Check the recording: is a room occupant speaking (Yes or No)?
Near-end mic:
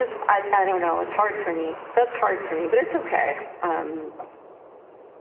No